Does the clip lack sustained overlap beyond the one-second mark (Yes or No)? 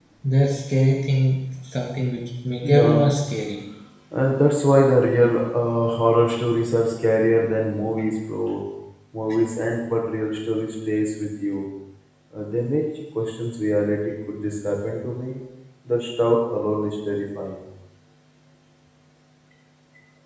Yes